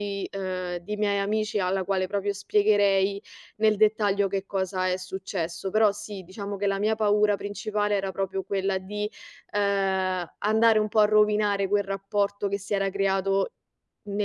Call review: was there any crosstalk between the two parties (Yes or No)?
No